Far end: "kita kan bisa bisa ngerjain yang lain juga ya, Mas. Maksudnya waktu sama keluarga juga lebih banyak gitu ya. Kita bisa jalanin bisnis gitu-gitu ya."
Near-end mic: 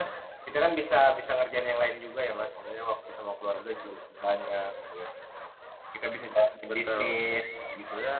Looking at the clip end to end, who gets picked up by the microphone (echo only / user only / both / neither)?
both